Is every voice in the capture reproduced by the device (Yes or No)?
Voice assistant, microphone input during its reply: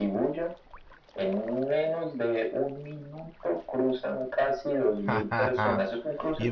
No